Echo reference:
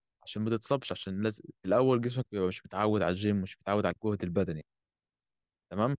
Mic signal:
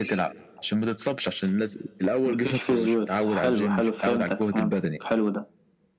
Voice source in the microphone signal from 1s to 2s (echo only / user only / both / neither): echo only